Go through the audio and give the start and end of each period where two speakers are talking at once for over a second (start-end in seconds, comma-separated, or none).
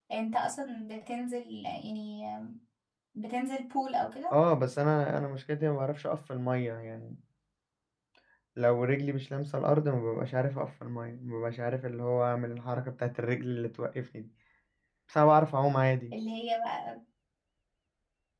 none